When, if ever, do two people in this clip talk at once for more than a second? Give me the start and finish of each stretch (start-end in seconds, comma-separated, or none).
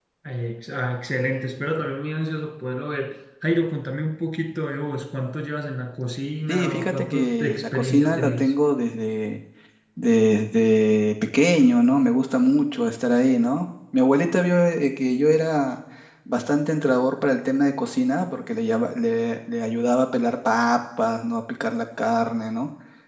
6.5-8.5